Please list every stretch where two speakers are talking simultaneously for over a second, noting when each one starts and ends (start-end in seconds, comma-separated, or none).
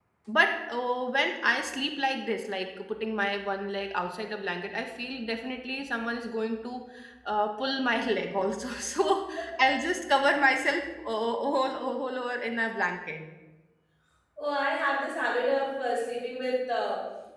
none